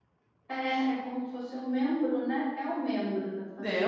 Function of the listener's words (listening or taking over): taking over